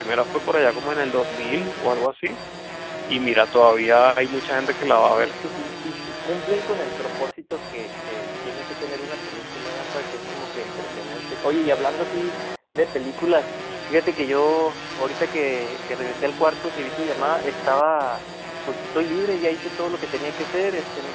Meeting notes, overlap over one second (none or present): none